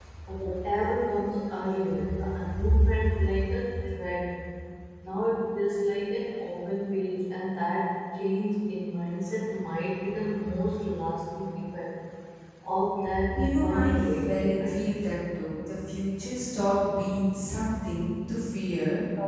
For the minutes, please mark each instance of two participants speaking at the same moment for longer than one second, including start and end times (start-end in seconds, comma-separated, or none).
13.3-14.8